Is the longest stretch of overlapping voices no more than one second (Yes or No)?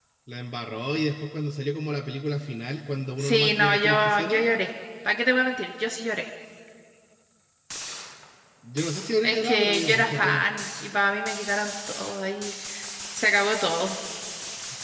No